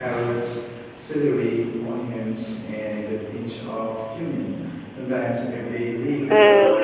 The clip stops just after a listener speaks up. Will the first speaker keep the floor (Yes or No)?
No